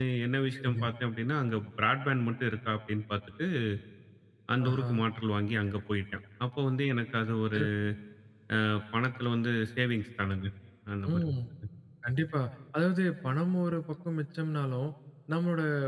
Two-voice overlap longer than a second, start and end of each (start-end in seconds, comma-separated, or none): none